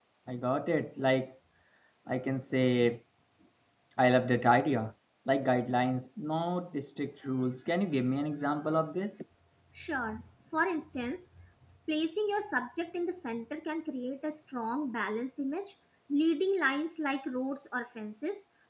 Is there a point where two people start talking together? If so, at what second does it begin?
none

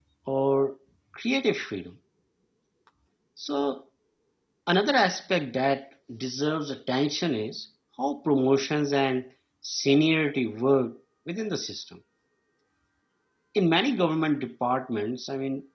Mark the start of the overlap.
none

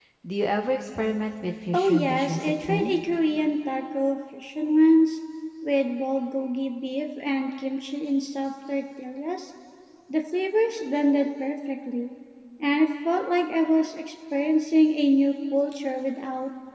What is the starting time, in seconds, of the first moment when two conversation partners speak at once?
1.7 s

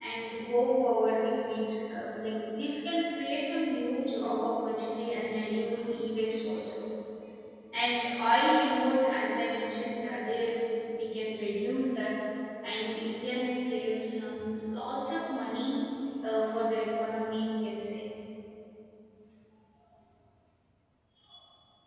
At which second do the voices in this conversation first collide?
none

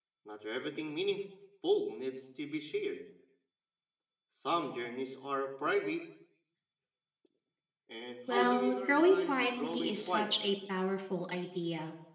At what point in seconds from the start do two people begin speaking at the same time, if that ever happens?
8.3 s

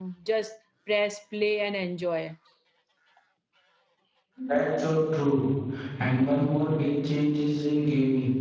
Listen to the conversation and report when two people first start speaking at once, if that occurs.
none

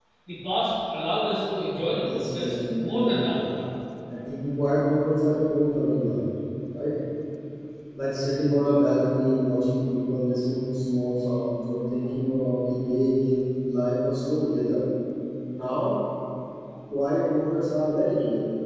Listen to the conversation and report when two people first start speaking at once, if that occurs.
2.0 s

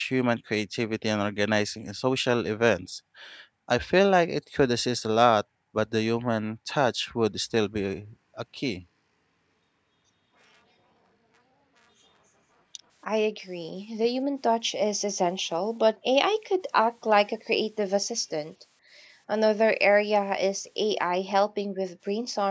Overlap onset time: none

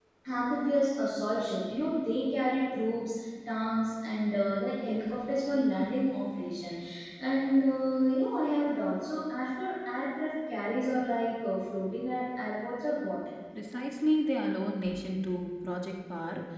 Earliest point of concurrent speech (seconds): none

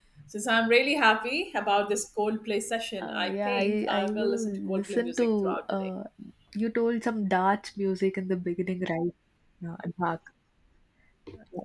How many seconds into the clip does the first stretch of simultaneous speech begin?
3.0 s

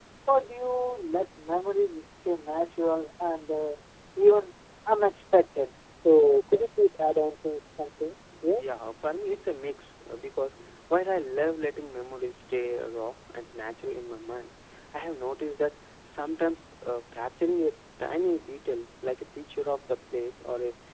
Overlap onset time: none

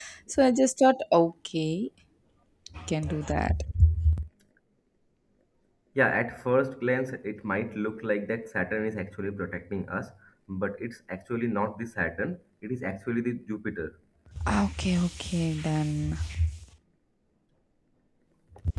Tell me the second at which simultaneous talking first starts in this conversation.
none

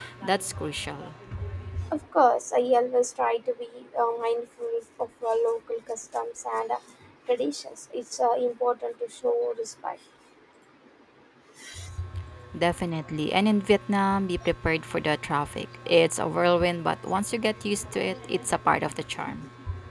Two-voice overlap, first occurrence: none

